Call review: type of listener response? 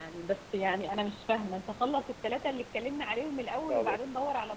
listening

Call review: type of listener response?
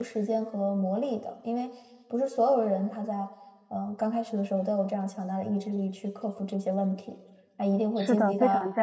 taking over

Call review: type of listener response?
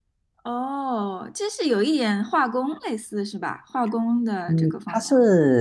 taking over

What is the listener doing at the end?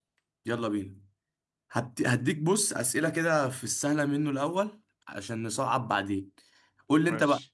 listening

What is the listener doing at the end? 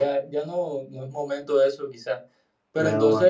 listening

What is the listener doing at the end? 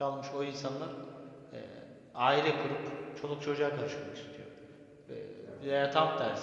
listening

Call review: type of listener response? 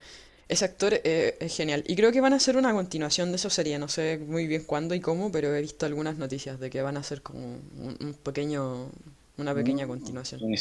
taking over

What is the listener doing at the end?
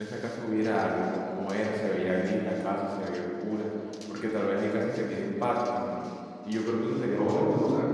taking over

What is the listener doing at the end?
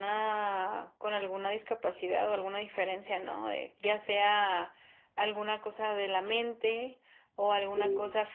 listening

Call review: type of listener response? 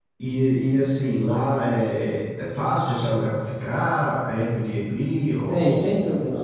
taking over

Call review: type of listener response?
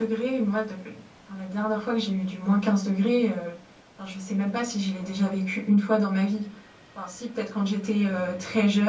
listening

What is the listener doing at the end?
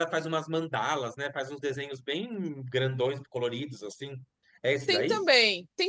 taking over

